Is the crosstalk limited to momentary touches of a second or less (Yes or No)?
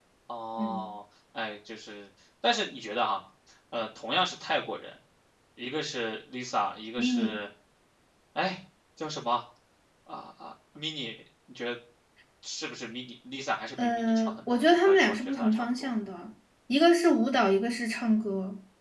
No